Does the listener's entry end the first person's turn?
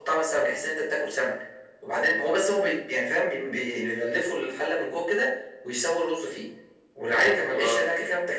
No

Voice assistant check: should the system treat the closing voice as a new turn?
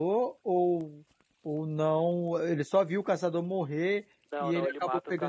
Yes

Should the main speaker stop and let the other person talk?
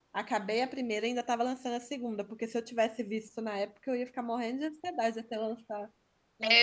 Yes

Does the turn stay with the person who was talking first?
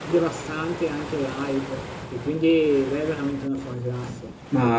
No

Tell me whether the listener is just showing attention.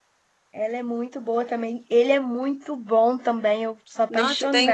No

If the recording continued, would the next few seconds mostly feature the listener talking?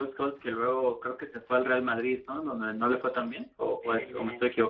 Yes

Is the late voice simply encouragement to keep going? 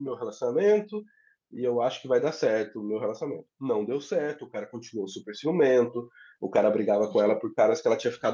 Yes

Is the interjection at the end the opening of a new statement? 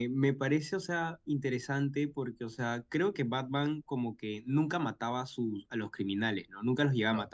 No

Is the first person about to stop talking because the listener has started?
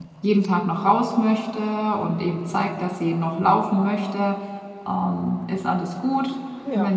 No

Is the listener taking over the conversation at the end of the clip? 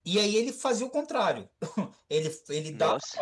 No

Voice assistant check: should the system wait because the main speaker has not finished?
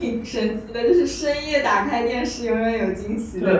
No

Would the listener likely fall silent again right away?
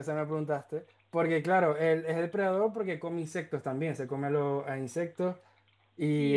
No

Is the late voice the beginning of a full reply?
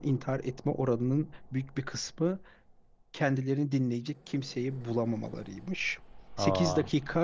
No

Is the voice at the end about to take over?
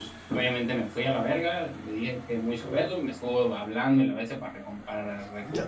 Yes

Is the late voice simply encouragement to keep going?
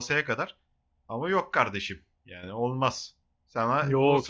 No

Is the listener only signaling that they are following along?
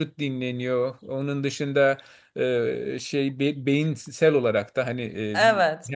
Yes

